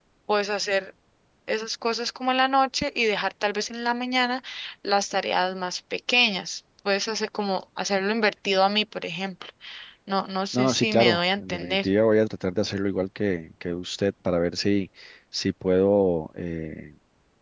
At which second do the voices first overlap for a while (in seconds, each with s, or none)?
10.5 s